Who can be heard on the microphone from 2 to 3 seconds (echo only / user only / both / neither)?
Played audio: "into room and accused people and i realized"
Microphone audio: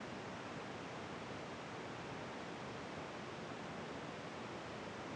neither